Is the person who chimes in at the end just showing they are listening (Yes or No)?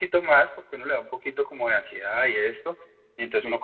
Yes